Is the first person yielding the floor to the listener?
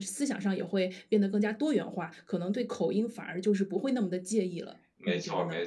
Yes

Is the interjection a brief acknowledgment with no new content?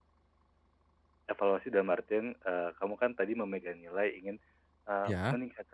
Yes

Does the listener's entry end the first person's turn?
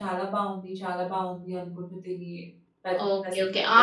Yes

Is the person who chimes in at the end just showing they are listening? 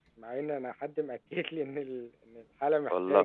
Yes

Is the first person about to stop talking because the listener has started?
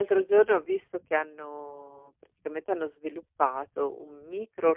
No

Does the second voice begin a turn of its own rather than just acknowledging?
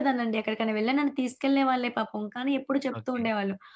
No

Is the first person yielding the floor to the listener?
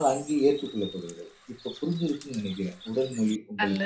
Yes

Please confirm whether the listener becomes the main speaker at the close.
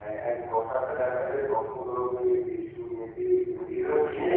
Yes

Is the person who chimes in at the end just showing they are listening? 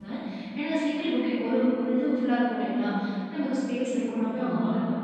Yes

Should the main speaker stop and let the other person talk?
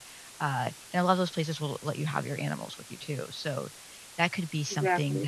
No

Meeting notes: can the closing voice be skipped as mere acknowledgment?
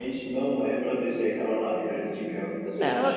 No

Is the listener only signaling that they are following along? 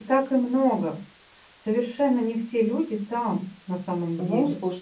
No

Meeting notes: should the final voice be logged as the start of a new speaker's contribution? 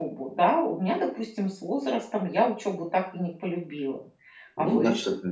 Yes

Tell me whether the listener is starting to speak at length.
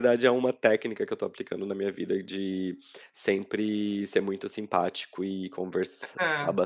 No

